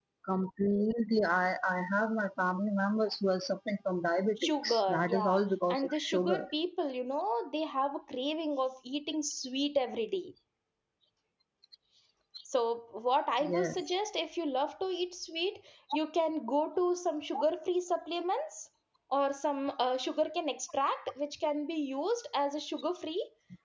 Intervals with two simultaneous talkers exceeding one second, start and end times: 4.4-6.4

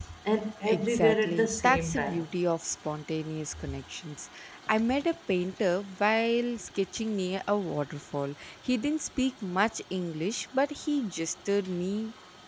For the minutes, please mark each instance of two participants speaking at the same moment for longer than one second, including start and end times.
0.7-2.2

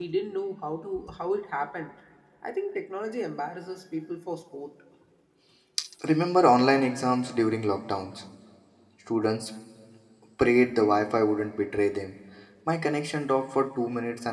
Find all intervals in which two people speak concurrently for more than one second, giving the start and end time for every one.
none

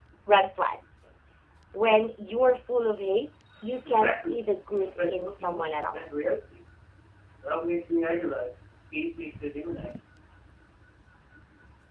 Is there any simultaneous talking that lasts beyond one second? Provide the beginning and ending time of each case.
4.8-6.0

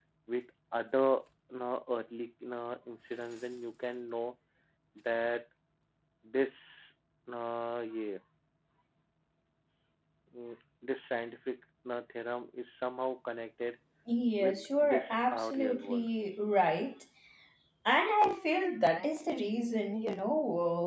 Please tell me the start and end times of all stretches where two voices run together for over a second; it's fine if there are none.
14.4-16.1

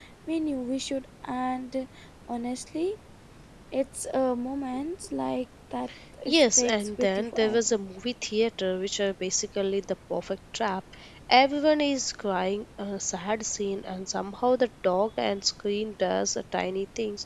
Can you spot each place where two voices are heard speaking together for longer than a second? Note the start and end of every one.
6.3-7.6

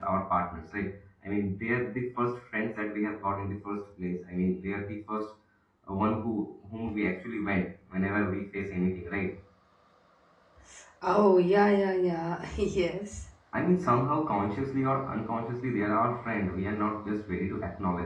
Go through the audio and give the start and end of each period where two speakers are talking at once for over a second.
none

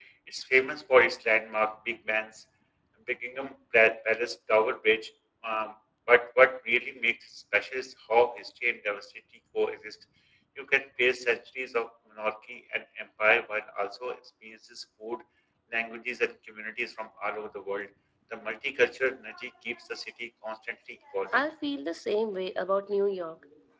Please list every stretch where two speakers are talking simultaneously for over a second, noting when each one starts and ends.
none

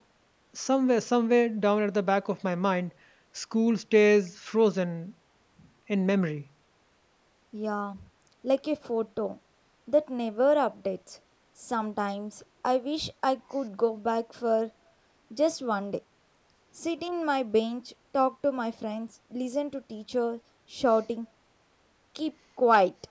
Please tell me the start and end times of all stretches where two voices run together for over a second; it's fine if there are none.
none

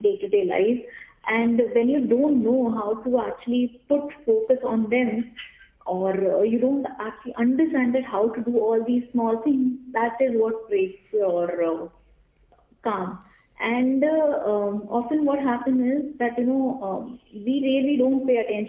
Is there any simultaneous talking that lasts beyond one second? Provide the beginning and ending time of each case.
none

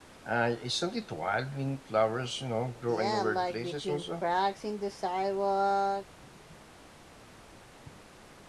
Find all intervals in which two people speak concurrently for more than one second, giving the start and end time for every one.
2.9-4.2

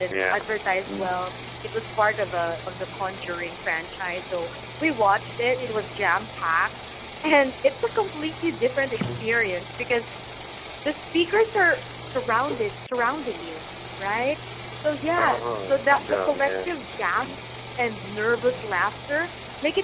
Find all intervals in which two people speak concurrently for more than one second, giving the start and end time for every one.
15.1-16.5

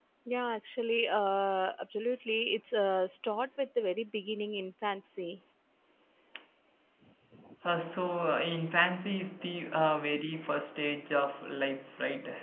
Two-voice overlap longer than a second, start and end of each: none

